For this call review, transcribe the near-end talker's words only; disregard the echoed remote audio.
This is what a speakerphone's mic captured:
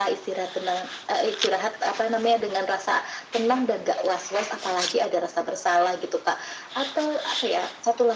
none

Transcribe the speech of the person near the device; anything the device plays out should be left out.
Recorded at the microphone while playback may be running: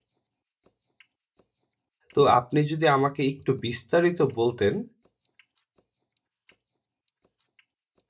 তো আপনি যদি আমাকে একটু বিস্তারিত বলতেন

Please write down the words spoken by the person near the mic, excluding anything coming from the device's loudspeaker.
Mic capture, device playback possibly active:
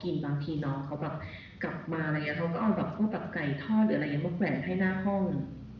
none

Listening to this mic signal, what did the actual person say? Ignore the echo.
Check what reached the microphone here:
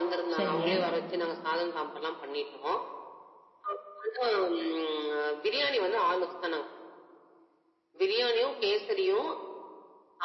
சரிங்க.

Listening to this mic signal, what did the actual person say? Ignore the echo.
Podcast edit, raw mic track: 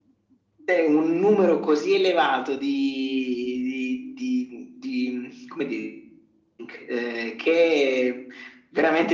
none

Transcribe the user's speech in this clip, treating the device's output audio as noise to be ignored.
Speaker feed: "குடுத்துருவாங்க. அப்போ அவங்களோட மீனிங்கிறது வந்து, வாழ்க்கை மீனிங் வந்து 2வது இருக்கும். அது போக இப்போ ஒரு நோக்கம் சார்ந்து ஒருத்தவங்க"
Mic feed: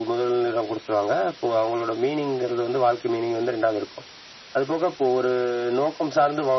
none

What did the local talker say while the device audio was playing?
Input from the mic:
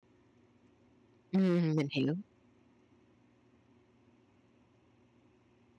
Ừm, ừm, mình hiểu.

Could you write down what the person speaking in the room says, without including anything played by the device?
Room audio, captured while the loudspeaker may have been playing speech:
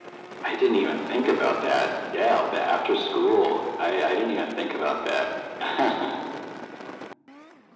none

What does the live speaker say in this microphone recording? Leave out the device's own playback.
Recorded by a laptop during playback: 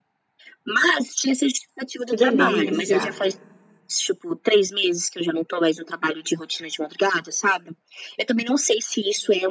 Que delícia.

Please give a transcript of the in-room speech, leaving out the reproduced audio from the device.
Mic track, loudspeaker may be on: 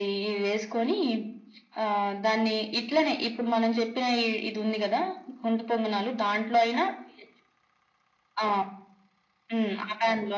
none

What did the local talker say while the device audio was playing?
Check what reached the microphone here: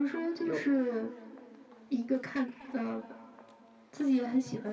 有

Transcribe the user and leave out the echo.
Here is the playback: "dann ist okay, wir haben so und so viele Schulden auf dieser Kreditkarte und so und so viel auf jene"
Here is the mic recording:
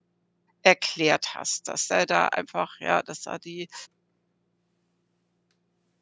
erklärt hast, dass er da einfach ja, dass da die

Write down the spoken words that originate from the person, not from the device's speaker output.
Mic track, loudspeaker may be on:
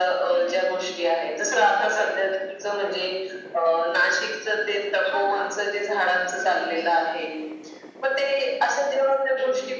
none

